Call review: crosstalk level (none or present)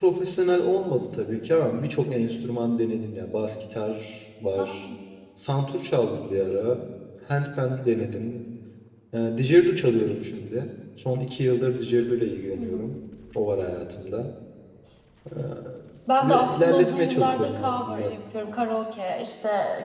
present